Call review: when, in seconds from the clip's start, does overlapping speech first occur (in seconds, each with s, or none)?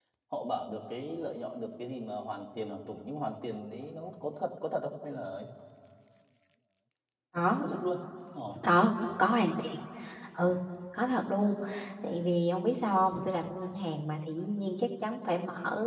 none